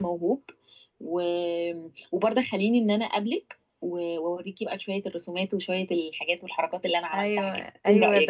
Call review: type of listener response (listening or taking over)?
taking over